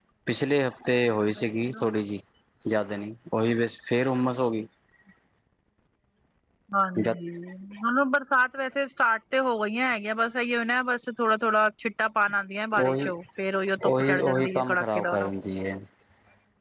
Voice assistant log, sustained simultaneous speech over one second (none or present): present